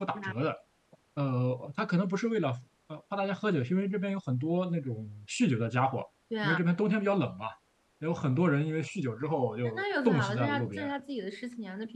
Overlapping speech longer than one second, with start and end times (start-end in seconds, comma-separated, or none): 9.6-10.9